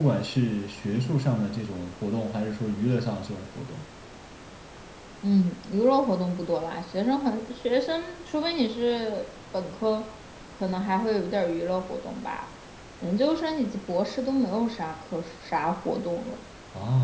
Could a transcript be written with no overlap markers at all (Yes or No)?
Yes